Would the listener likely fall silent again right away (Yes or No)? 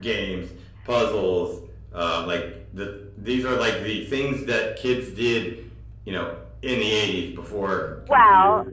No